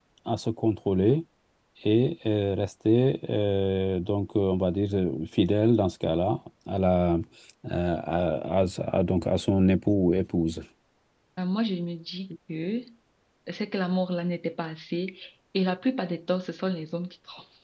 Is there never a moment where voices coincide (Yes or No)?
Yes